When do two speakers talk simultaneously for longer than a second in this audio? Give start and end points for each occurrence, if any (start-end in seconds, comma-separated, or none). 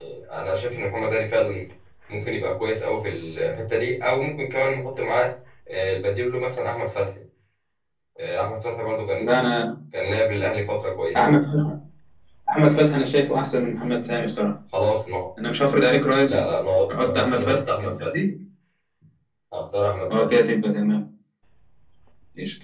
16.9-18.1